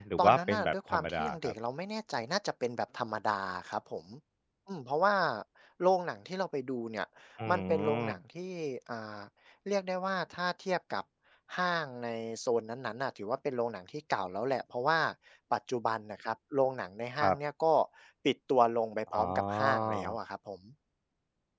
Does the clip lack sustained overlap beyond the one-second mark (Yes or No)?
No